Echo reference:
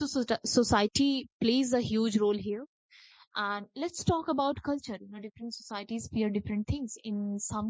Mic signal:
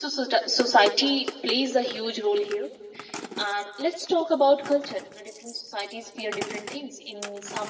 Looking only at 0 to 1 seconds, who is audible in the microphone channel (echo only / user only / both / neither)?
echo only